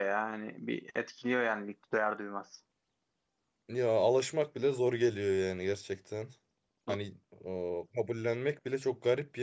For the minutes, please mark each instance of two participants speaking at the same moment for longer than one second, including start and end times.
none

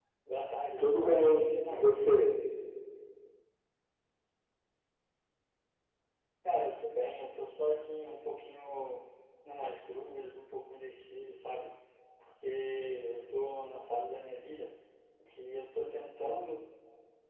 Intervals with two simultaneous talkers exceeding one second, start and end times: 0.8-2.1

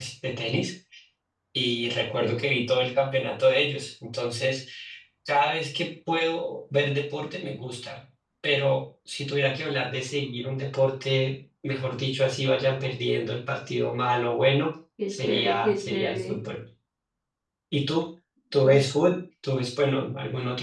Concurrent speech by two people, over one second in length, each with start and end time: 15.1-16.3

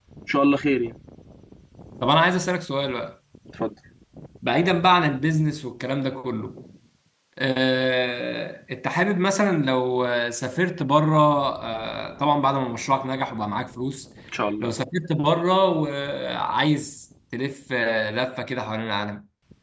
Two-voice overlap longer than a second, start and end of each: none

